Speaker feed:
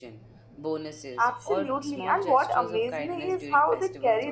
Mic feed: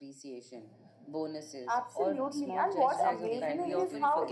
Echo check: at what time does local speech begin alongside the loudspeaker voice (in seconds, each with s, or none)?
2.8 s